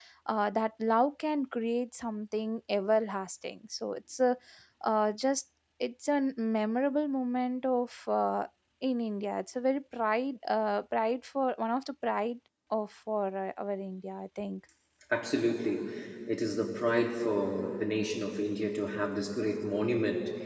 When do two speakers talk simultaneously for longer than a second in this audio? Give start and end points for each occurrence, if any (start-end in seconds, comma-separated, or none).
none